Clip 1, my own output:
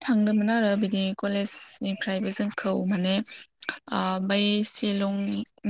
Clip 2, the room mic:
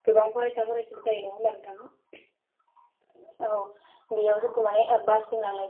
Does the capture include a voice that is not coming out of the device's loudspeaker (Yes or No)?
Yes